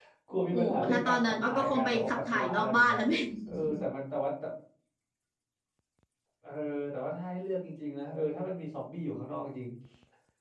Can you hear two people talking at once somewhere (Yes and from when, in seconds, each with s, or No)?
Yes, from 0.5 s